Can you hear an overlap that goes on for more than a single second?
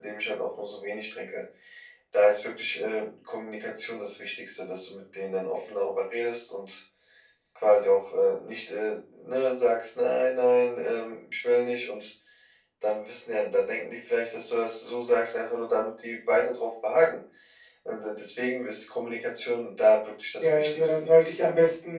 Yes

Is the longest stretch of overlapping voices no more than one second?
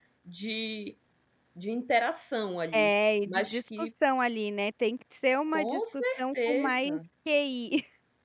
No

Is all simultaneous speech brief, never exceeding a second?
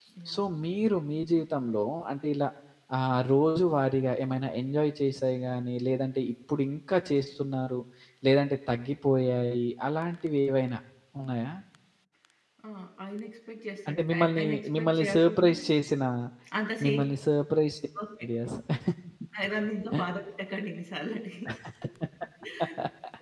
No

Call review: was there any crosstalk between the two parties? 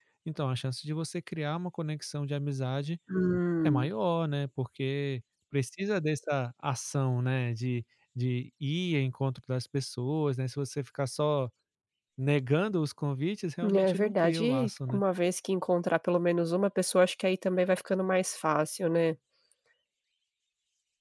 Yes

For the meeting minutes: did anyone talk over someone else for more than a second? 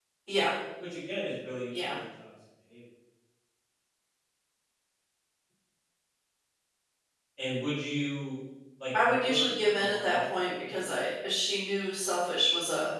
Yes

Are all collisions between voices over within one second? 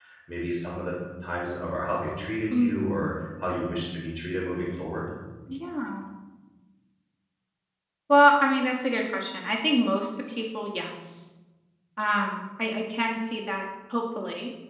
Yes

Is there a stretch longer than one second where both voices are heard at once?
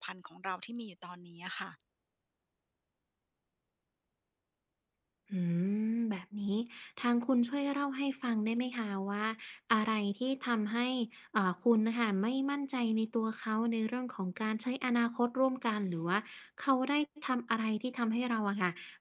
No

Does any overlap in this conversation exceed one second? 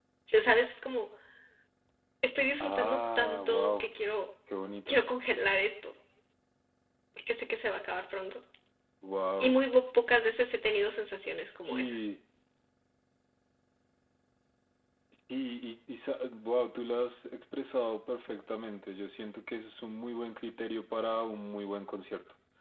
Yes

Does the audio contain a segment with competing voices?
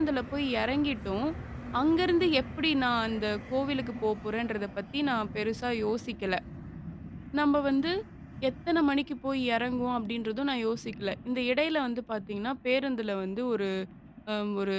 No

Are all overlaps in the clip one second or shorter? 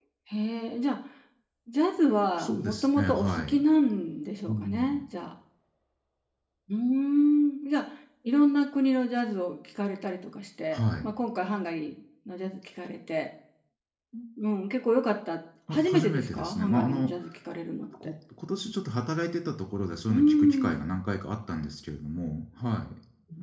No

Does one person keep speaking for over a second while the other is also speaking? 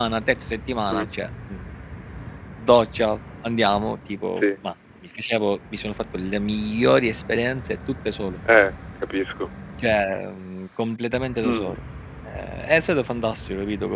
No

